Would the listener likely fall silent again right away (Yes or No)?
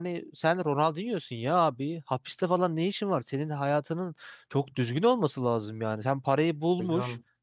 Yes